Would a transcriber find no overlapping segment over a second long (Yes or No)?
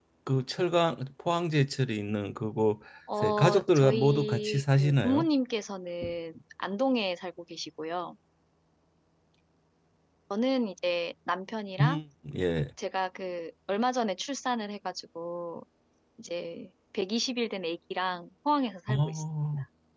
No